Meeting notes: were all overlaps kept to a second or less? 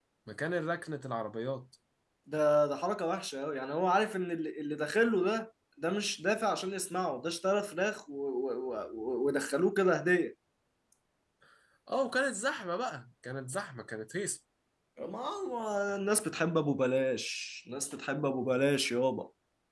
Yes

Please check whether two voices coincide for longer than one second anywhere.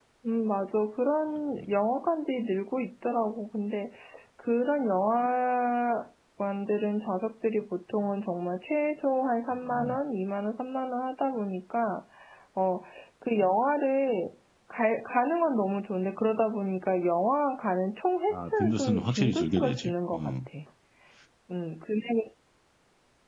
Yes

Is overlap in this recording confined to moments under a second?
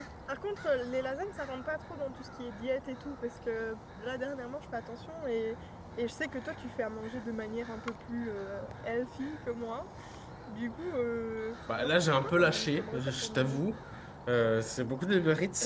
No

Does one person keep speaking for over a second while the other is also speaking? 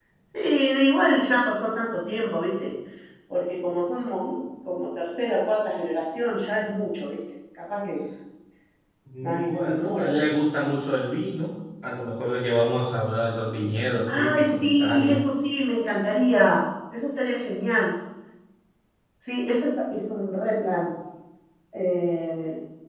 Yes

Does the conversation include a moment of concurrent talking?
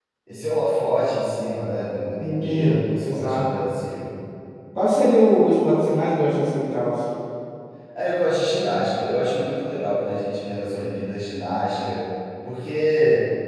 Yes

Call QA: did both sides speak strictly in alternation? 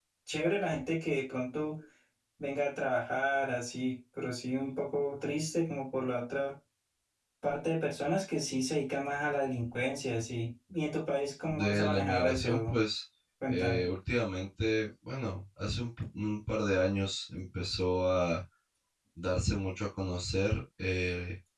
No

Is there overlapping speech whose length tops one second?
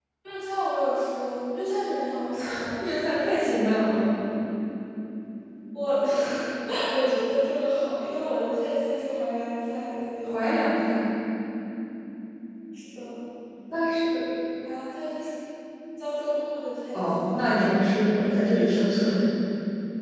No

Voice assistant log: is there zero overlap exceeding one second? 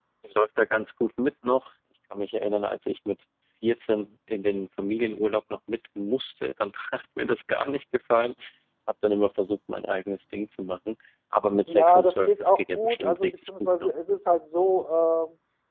No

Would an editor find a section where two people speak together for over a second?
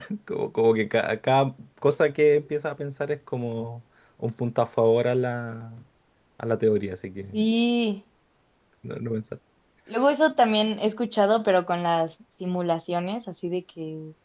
No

